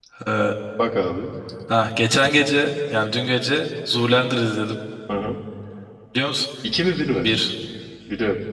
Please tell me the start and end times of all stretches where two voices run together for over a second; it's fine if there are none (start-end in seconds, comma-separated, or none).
none